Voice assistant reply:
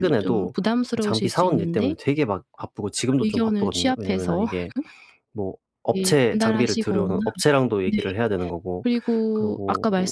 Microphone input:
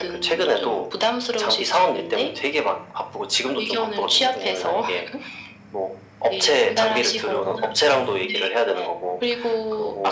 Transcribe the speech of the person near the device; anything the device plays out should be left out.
none

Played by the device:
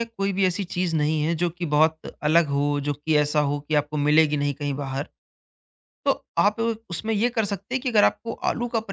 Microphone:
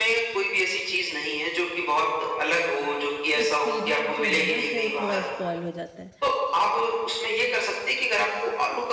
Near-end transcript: एक्सपीरियंस जो है ना वो थोड़ा स्पॉइल हो जाता है

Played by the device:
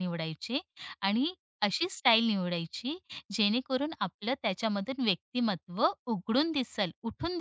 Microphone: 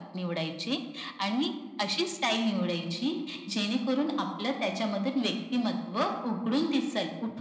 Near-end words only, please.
none

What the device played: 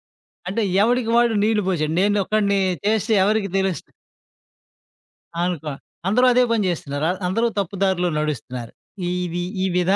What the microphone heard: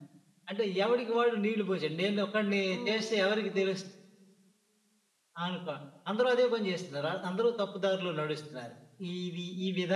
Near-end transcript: హ్మ్. హ్మ్.

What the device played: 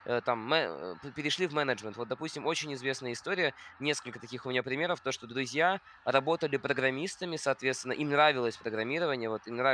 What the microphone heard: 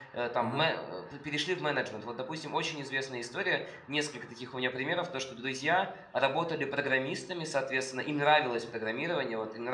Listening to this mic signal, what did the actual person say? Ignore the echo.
Мгм.

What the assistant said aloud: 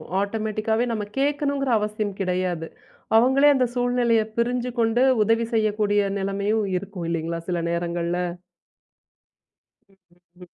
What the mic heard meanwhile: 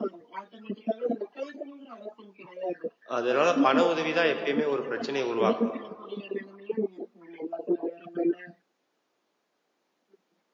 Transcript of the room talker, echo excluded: அதனால பண உதவி தான் எப்பயுமே ஒரு பிரச்சனைய உருவாக்கும்.

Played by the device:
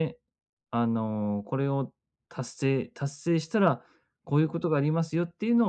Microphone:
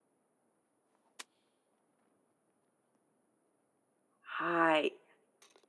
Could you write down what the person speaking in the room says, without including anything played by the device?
はい。

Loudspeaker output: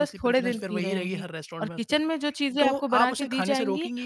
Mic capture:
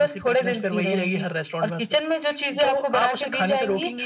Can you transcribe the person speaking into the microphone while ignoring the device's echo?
none

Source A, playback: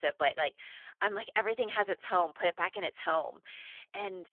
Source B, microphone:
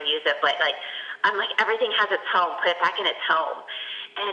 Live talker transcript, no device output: none

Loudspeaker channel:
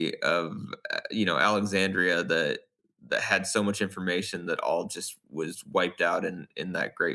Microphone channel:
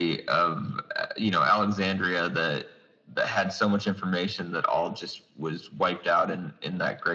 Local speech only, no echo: none

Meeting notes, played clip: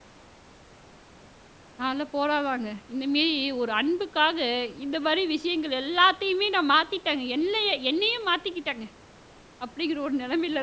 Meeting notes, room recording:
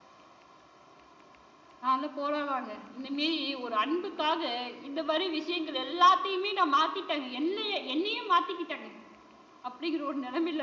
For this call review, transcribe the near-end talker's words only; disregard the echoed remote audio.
none

